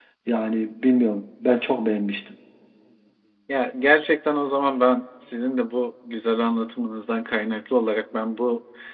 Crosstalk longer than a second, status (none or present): none